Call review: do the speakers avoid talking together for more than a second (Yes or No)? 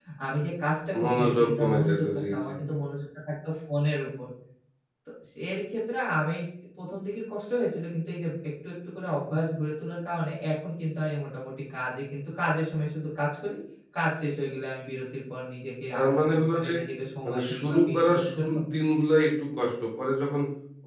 No